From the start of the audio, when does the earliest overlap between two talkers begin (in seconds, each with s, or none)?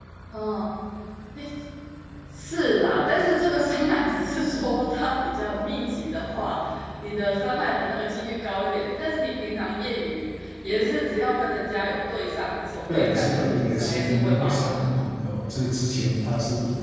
12.9 s